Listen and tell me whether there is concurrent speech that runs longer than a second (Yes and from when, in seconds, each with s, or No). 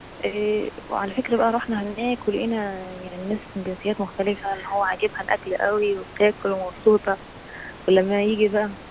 No